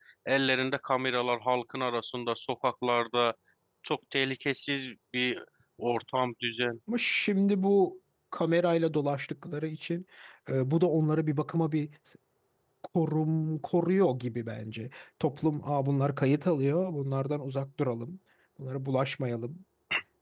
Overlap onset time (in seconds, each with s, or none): none